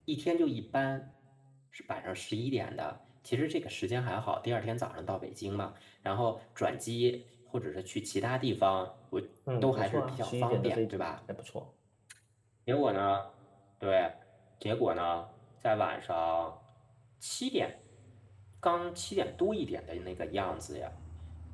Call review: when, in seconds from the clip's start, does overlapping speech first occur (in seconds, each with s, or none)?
9.6 s